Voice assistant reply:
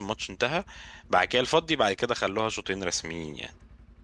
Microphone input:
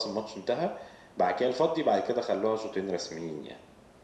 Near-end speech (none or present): none